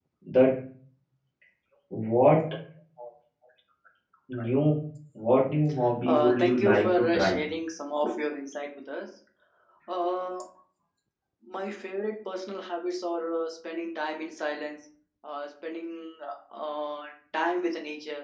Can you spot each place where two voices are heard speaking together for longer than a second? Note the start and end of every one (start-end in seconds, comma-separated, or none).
6.1-7.3